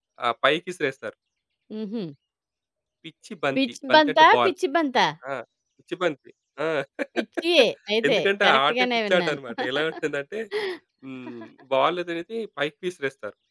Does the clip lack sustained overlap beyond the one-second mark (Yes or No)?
No